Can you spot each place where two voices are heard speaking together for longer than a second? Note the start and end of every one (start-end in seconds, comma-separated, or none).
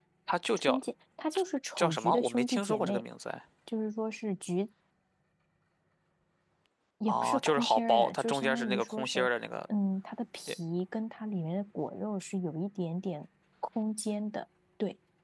1.8-3.0, 7.1-9.3